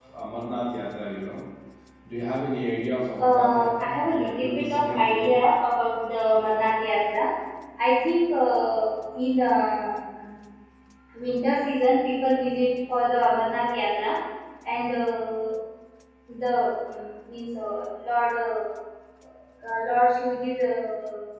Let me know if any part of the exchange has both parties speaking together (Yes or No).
Yes